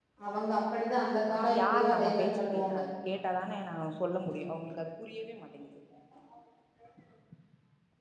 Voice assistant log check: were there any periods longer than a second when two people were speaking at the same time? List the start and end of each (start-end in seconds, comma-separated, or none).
1.3-2.8